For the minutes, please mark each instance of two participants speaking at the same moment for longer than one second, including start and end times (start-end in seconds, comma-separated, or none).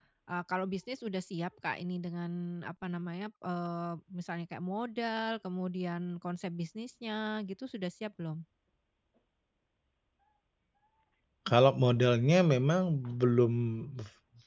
none